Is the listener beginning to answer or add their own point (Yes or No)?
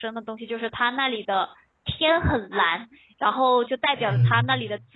No